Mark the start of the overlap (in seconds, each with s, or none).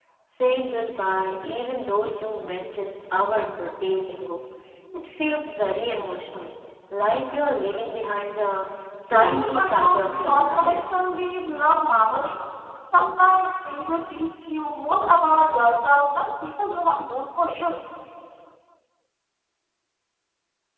9.1 s